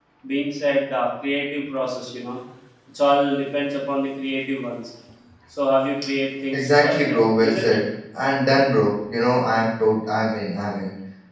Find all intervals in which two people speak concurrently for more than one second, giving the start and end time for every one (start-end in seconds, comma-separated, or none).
6.5-7.8